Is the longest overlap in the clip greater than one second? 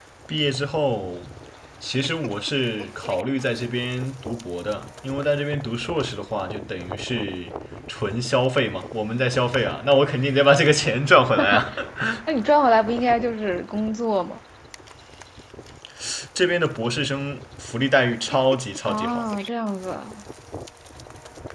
No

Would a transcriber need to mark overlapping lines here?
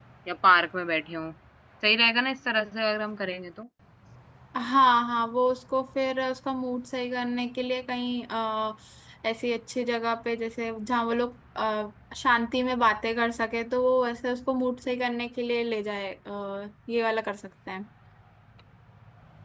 No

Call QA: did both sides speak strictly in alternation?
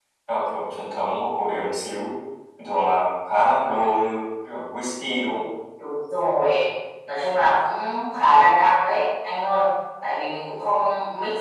Yes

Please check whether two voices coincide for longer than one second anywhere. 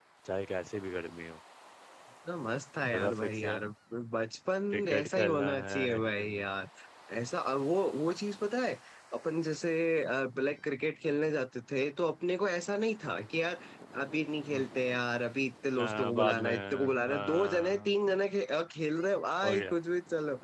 Yes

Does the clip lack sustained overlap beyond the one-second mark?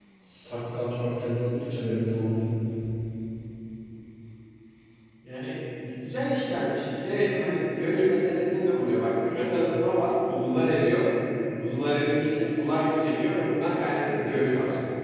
Yes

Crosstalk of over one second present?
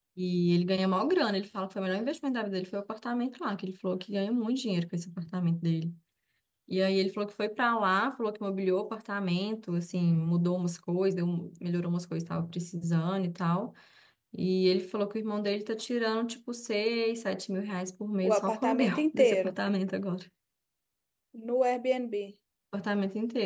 Yes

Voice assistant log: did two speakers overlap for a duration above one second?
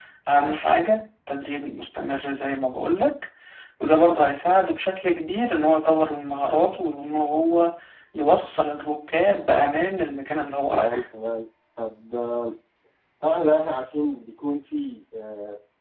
No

